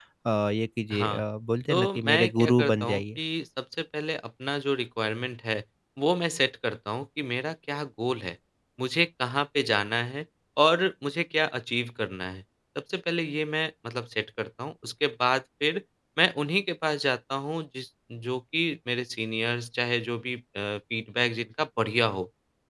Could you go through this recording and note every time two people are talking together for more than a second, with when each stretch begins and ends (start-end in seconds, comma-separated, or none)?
1.7-3.2